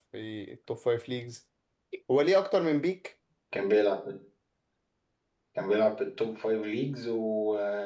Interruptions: none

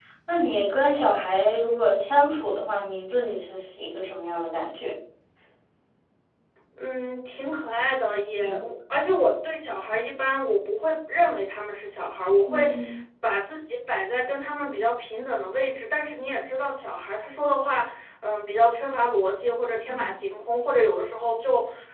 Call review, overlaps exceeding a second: none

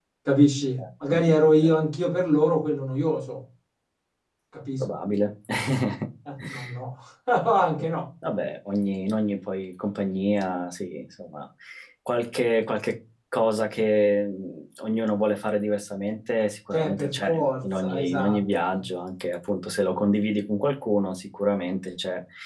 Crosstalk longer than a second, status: present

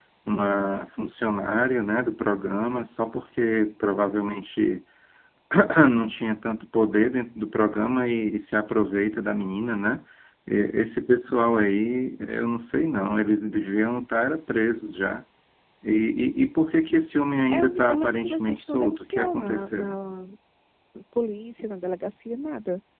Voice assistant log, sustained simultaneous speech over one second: present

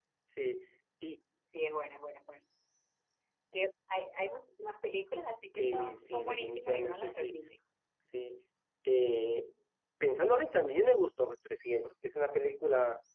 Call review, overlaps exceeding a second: present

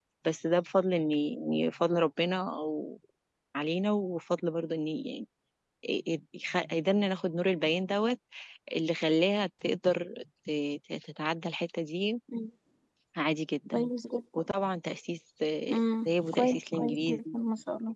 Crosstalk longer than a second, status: present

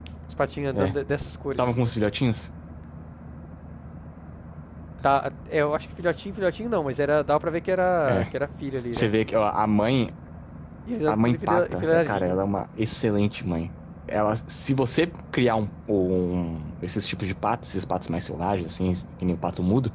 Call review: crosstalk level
present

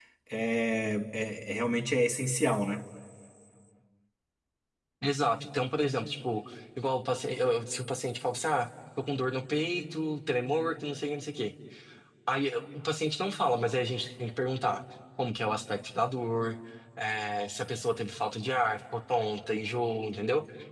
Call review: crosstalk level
none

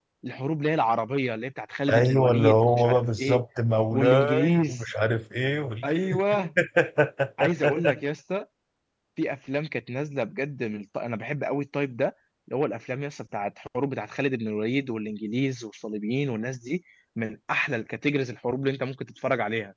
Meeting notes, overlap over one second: present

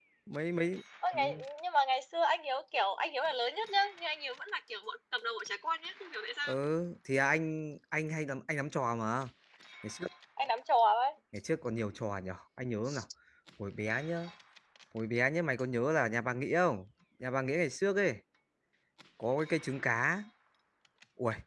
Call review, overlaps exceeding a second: none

